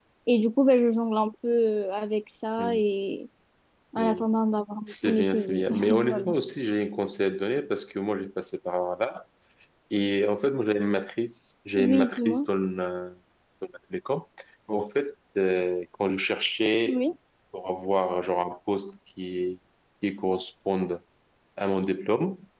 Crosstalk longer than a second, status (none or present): present